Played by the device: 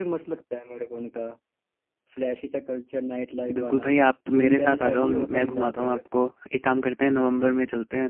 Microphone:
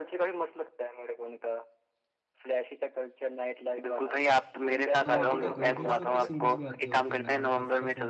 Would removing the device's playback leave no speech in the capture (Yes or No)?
No